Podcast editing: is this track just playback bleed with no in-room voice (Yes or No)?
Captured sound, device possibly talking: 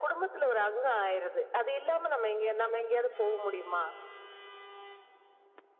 Yes